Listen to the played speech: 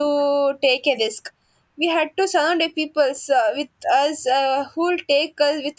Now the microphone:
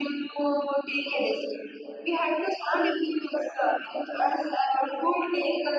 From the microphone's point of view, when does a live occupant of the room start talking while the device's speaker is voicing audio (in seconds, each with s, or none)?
none